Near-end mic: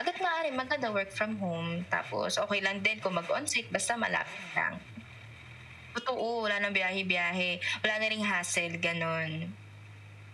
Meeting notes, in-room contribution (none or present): none